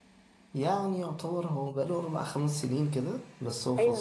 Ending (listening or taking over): taking over